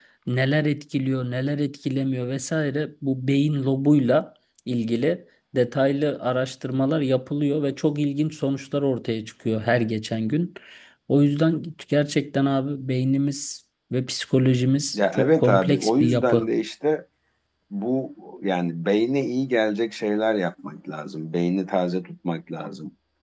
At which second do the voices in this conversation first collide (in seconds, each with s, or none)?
14.9 s